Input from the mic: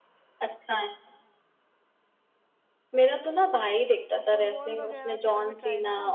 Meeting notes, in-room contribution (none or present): present